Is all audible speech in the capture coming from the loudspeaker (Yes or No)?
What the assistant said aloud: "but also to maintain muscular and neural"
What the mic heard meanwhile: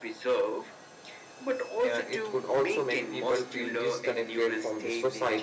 No